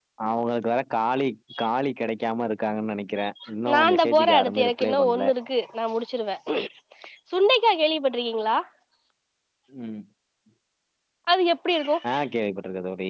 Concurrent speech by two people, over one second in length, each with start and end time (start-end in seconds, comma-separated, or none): 3.7-5.3